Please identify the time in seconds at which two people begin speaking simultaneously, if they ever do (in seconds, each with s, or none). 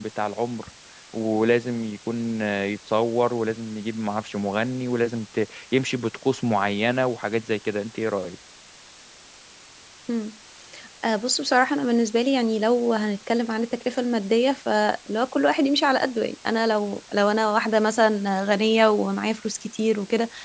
none